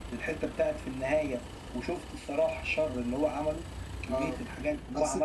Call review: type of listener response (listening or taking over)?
taking over